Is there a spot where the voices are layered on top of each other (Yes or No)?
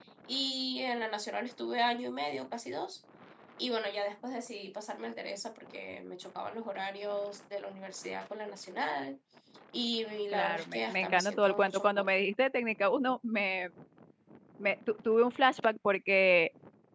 Yes